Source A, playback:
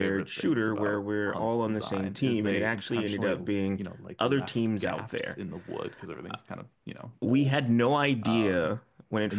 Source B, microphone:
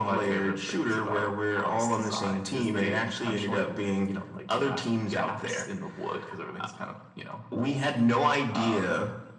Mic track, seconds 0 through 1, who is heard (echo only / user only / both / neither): echo only